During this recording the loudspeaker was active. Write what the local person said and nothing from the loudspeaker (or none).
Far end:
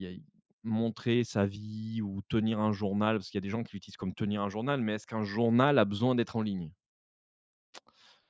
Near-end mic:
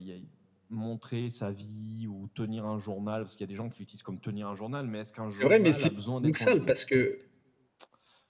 C'est vrai, mais c'est paradoxal parce que